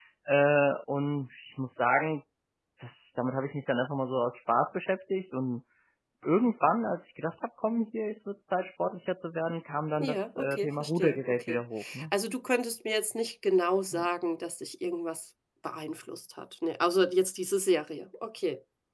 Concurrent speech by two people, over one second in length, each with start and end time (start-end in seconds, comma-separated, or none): 10.0-11.6